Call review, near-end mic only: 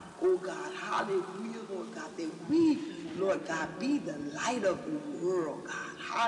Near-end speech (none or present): present